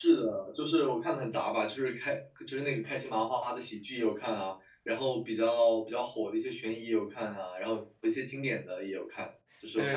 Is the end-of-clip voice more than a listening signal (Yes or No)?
Yes